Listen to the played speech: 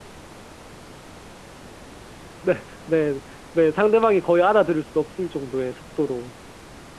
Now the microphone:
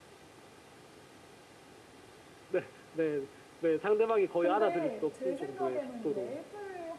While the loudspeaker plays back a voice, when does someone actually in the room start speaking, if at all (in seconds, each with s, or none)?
4.4 s